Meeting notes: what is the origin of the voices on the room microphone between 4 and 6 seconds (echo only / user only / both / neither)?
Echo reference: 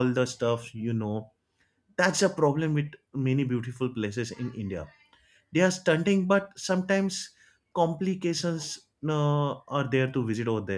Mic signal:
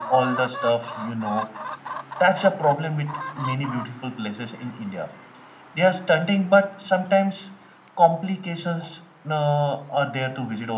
echo only